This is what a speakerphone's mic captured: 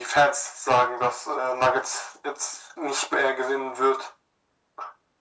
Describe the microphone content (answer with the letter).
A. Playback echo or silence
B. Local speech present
A